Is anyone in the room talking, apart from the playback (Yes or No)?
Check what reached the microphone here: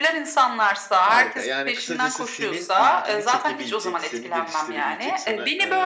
Yes